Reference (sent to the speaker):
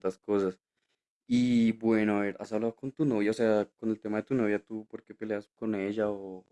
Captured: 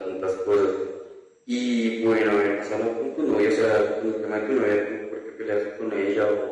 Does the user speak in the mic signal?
No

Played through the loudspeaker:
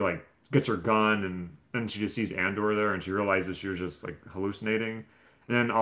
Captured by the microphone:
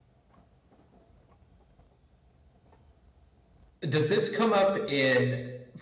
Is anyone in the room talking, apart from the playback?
Yes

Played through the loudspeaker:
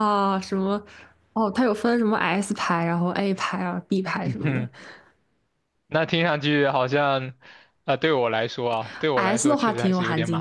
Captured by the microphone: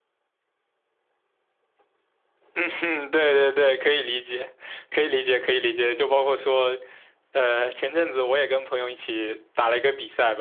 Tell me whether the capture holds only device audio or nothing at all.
No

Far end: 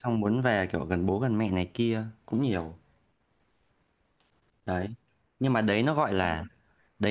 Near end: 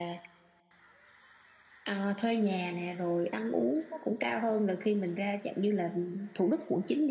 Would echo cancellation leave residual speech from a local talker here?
Yes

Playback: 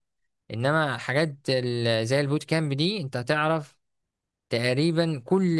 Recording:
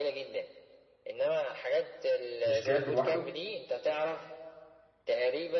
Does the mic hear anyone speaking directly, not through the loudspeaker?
Yes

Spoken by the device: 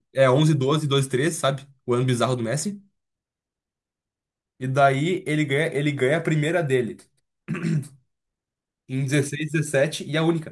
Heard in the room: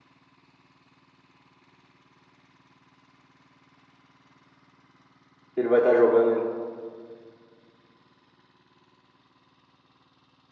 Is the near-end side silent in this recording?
No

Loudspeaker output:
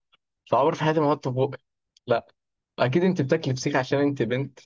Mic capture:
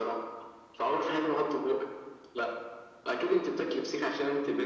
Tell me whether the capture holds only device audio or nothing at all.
Yes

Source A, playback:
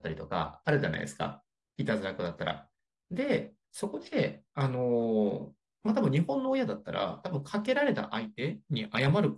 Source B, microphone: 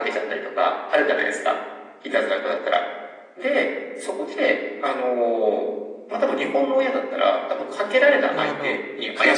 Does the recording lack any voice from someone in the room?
No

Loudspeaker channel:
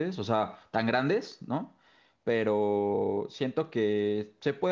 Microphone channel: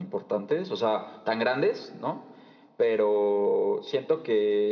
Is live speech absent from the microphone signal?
Yes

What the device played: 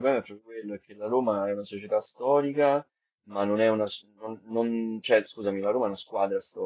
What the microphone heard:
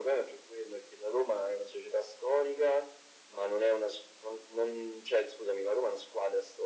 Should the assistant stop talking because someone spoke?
No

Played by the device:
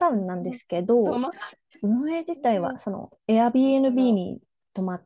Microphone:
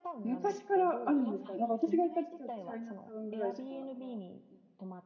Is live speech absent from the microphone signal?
No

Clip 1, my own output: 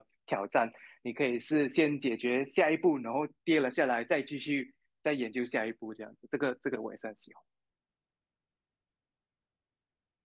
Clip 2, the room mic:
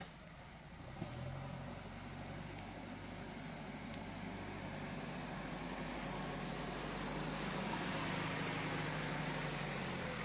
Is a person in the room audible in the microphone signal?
No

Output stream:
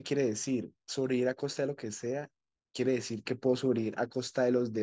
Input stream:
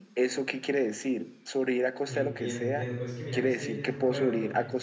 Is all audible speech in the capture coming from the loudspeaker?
No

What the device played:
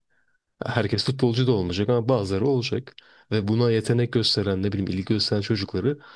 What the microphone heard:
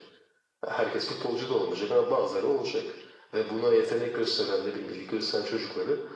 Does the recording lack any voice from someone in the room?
Yes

